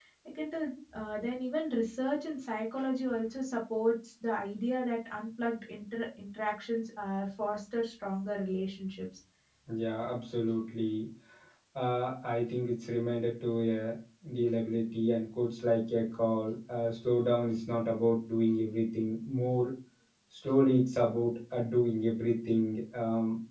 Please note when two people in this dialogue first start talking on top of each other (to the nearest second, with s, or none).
none